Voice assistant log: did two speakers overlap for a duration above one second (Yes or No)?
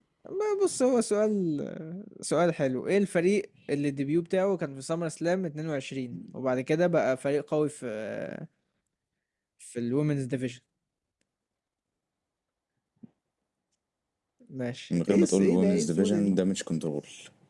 Yes